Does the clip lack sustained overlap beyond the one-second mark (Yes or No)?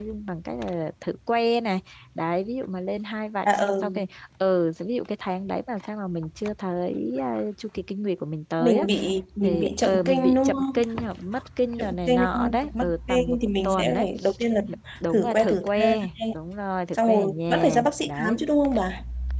No